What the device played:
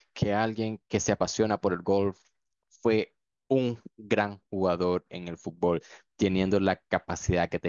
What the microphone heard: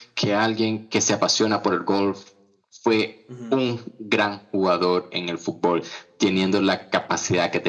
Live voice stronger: No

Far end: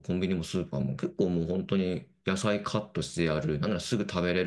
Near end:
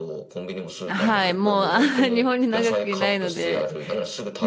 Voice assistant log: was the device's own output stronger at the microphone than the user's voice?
No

